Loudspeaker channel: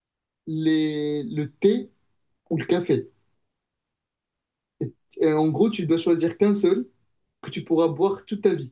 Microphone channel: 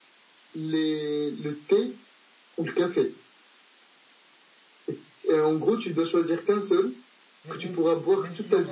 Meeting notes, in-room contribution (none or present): present